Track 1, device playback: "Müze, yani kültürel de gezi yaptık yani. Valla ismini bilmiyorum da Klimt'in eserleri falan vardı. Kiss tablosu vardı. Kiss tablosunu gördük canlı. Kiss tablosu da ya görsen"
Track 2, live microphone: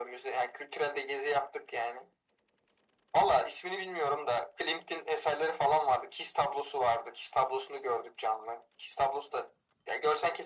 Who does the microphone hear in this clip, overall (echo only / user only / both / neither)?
echo only